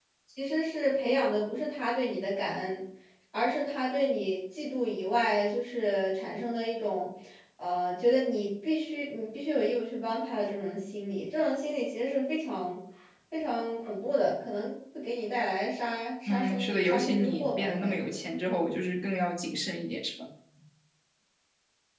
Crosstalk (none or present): present